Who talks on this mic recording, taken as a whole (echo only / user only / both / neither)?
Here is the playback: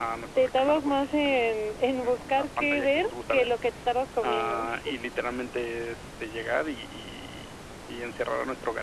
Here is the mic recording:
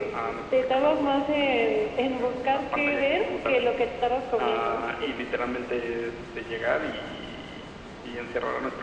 echo only